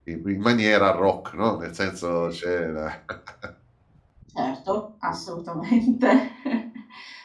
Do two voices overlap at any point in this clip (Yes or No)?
No